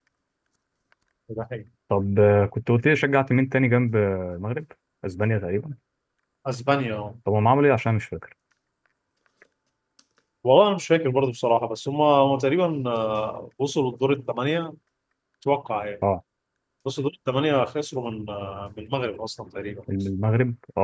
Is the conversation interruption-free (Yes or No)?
Yes